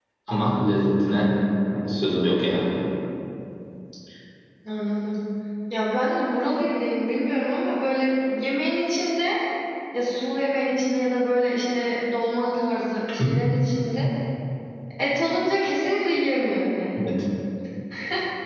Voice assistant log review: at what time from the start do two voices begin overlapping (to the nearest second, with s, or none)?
none